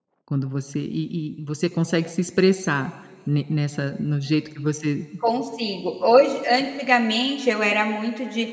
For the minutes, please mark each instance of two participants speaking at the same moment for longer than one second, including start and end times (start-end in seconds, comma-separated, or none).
none